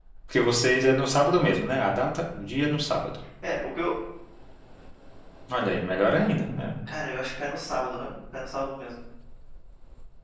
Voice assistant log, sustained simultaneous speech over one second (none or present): none